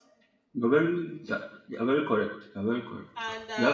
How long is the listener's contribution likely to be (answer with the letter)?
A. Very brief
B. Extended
B